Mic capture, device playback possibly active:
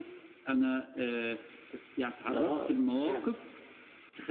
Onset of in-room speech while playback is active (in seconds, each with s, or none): 2.2 s